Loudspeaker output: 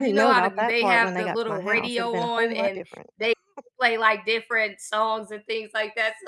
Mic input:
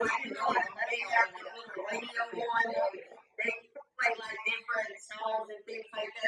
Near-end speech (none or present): none